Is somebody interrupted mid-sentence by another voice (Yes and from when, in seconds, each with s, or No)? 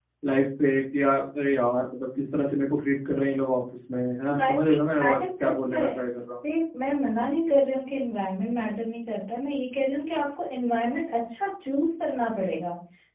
Yes, from 4.3 s